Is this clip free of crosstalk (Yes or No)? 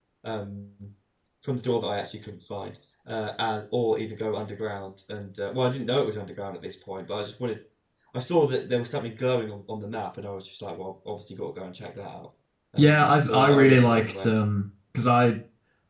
No